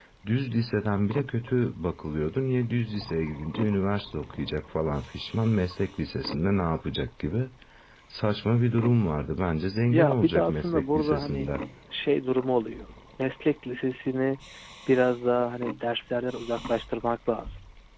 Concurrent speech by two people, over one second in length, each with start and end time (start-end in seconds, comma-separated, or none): 9.9-11.5